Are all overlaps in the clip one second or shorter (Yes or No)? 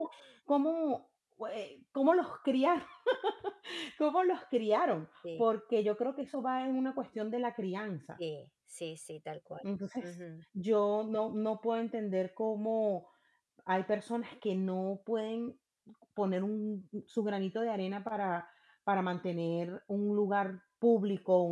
Yes